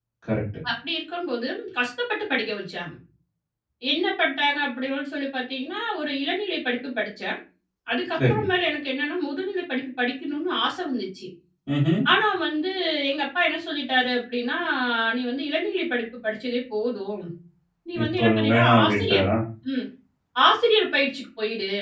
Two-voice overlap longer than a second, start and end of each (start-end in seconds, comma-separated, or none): 18.0-19.2